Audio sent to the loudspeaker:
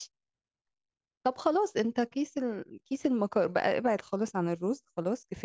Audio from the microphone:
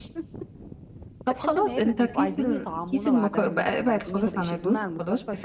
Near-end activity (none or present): present